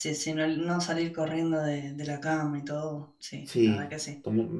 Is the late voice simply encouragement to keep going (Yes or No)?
No